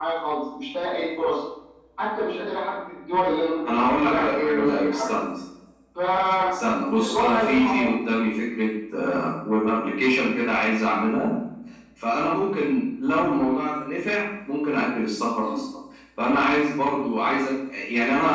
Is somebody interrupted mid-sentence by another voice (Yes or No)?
Yes